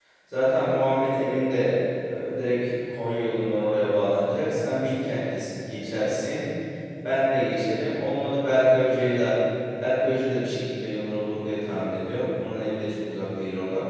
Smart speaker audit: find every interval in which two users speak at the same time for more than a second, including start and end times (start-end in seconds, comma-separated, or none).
none